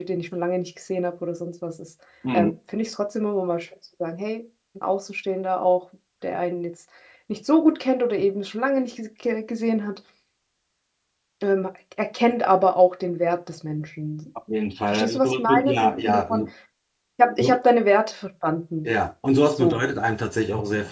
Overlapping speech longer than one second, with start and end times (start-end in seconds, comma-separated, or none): 14.9-16.4